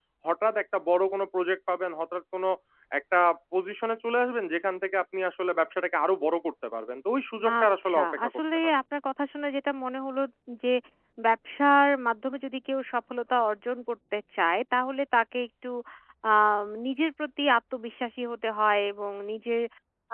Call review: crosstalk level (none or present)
present